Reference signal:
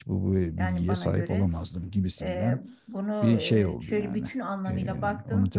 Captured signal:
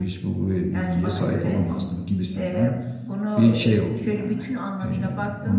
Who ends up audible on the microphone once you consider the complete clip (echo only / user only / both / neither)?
echo only